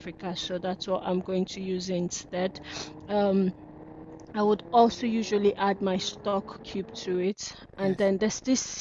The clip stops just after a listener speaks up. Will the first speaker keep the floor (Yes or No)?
Yes